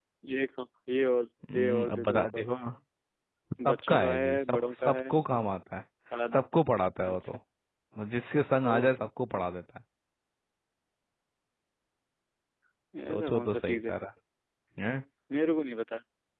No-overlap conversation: No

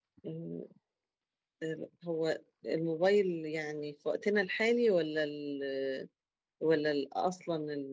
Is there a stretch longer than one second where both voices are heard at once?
No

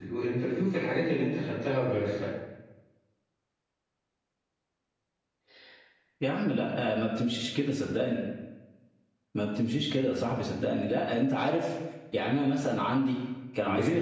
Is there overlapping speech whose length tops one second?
No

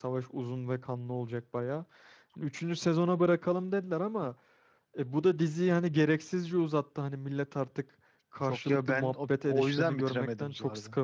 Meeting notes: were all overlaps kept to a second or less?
No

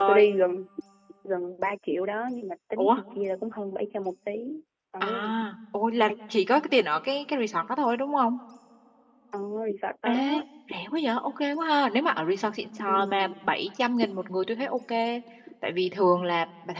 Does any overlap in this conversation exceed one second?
No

